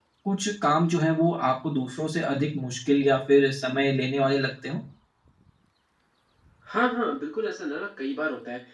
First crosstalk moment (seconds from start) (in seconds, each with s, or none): none